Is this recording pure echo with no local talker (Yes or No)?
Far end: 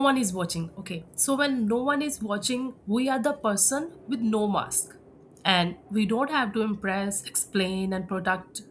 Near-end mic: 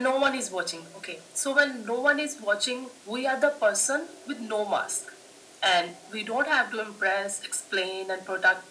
Yes